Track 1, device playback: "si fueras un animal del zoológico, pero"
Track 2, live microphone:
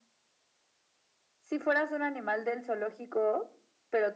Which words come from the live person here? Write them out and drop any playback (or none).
none